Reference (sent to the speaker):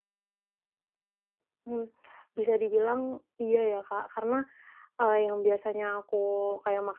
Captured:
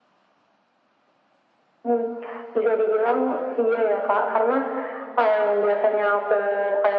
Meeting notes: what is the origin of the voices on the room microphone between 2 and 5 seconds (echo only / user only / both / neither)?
echo only